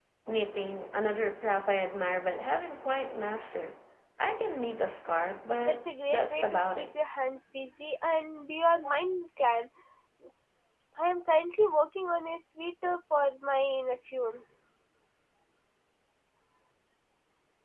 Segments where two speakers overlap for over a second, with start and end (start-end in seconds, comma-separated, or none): 5.7-6.9